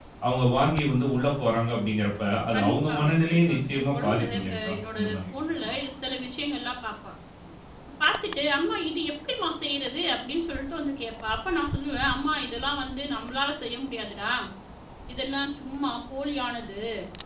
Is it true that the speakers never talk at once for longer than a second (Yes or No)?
No